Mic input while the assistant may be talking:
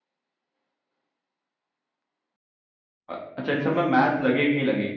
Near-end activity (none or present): present